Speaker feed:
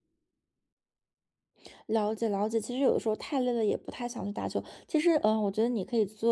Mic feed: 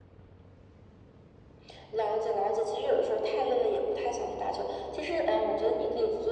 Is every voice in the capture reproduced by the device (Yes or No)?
Yes